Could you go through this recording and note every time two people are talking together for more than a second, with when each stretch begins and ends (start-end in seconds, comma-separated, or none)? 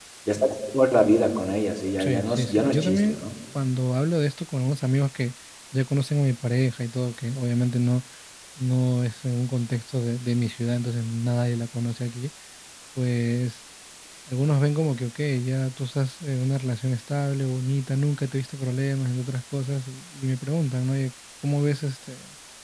2.0-3.2